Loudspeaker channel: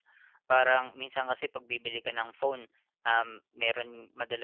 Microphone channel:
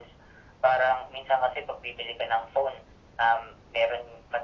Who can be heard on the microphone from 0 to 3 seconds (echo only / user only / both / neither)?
echo only